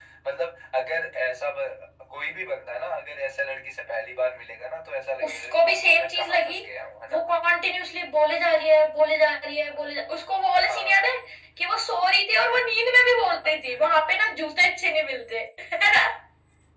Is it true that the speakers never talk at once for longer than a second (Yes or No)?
No